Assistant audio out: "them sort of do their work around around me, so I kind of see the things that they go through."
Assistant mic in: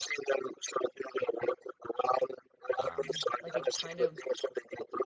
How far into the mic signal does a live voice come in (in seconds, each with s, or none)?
2.8 s